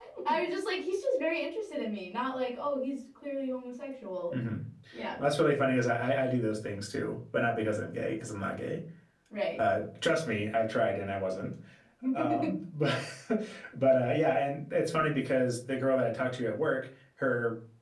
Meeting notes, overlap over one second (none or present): none